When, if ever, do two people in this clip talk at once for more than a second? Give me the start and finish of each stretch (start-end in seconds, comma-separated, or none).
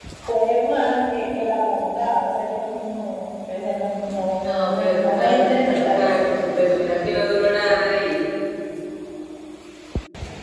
4.4-6.1